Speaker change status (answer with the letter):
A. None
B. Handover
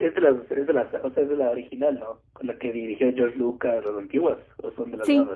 B